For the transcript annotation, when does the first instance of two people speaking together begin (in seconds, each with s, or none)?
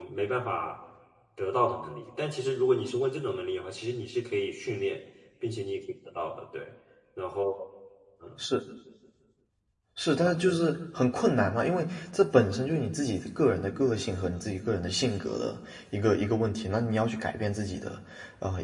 none